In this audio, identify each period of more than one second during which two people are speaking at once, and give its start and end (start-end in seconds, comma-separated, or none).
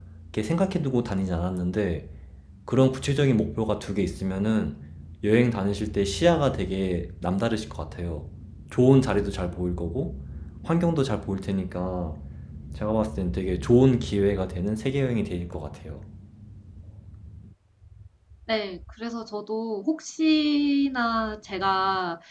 none